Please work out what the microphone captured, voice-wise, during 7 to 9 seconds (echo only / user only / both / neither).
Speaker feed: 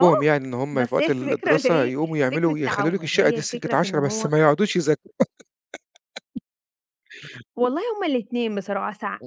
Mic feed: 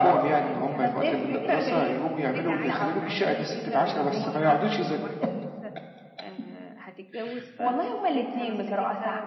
both